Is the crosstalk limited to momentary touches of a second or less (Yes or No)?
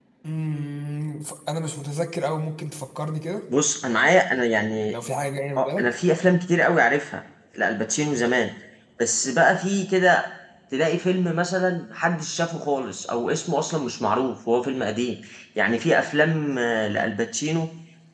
Yes